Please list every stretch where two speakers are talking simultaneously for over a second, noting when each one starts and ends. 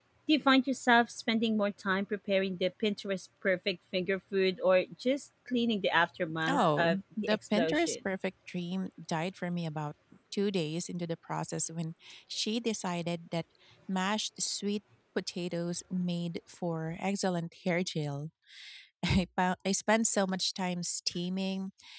6.5-8.0

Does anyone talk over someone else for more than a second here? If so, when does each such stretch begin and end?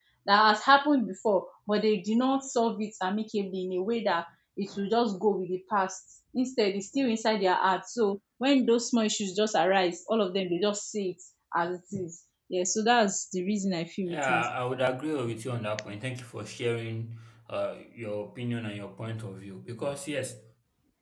none

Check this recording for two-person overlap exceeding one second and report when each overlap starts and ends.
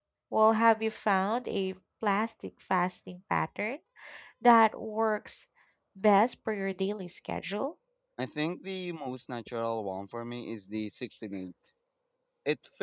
none

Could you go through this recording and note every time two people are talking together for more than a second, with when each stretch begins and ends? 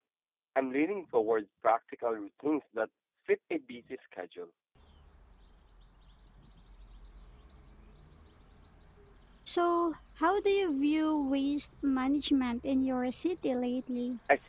none

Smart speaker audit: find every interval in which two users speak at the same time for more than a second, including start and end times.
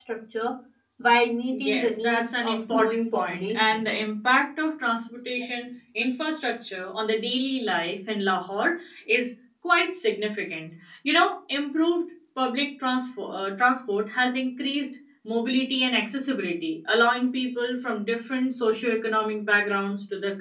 1.5-3.8

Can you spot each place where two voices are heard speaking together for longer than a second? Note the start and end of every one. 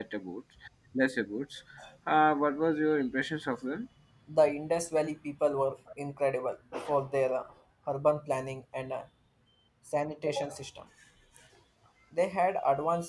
none

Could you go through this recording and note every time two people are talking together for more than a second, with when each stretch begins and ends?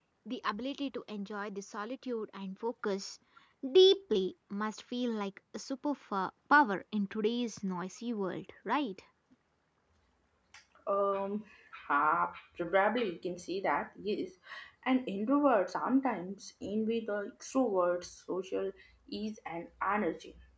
none

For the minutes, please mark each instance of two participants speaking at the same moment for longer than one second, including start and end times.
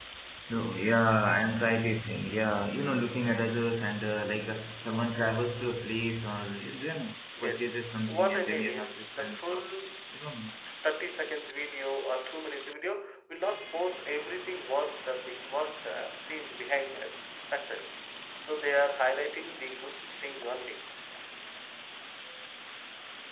8.1-9.7

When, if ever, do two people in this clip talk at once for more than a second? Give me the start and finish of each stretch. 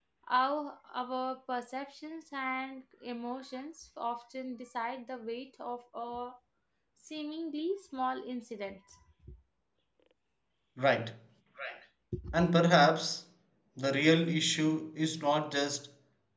none

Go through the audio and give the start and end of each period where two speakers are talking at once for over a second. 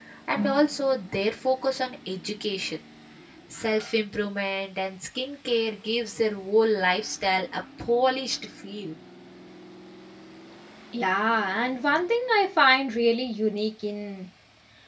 none

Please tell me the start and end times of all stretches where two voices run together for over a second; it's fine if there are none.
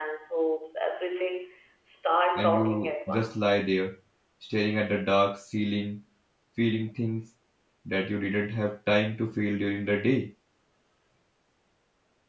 2.4-3.6

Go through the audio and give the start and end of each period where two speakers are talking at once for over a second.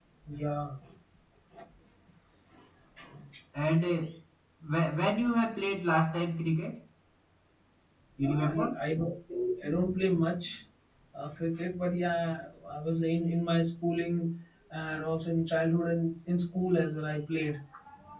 none

